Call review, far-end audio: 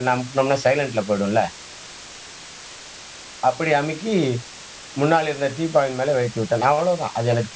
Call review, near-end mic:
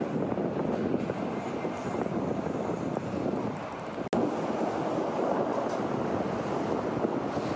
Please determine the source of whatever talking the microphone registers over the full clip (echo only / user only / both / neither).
neither